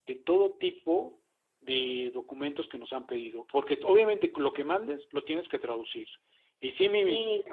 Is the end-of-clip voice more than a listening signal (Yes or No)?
No